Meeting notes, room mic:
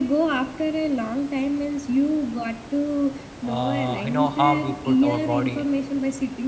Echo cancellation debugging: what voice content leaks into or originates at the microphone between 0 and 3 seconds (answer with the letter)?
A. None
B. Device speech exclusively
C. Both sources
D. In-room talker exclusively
B